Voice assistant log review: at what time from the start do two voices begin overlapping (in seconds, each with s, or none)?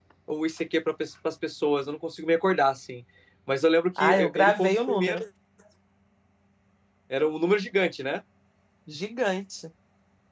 4.0 s